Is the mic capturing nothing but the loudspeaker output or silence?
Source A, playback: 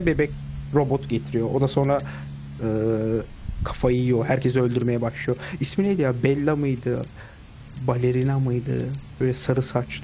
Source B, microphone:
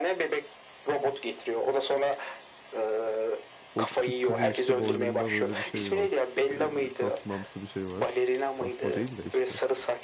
No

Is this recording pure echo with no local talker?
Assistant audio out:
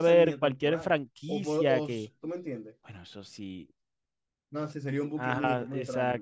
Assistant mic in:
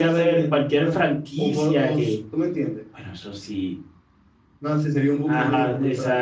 Yes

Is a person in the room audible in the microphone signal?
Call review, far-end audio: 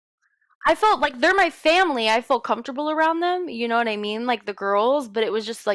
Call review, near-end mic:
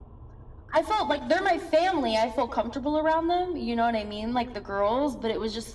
No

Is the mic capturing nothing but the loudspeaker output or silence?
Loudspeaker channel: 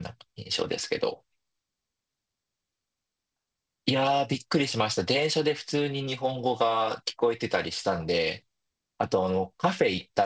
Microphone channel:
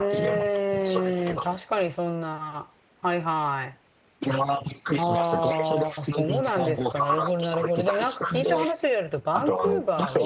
No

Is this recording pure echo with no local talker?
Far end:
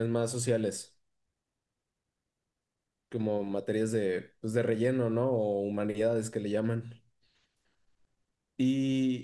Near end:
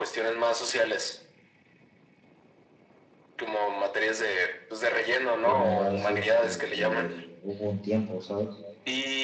No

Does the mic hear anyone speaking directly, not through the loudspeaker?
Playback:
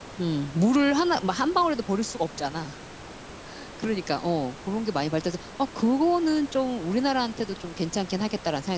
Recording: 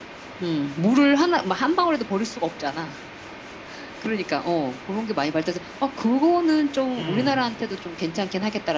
Yes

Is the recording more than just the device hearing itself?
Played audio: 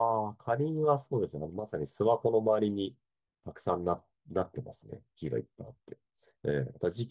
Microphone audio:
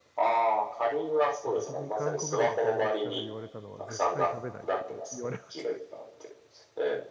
Yes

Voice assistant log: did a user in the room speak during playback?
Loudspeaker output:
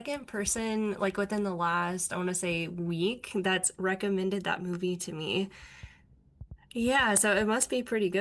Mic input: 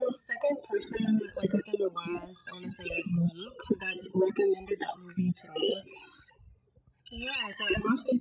No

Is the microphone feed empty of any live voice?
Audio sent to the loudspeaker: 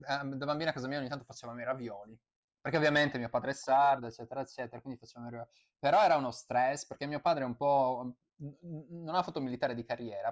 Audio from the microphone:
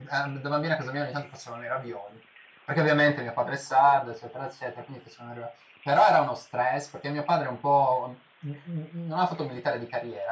Yes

